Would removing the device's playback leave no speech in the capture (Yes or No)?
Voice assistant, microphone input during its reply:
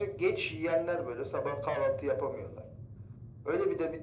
Yes